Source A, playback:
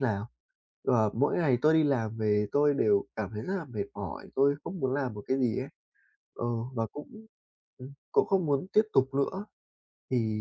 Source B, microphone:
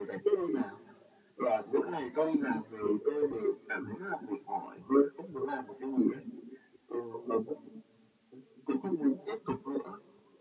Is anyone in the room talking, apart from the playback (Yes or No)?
No